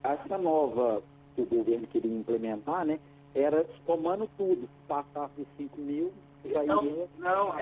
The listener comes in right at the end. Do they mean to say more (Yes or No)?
Yes